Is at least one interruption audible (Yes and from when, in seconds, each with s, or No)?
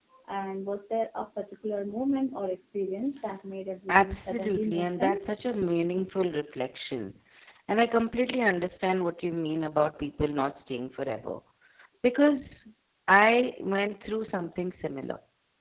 Yes, from 3.9 s